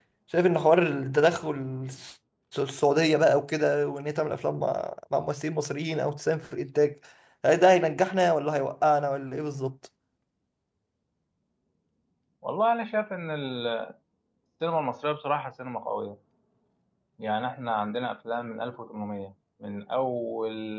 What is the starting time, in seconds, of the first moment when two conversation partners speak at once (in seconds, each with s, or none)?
none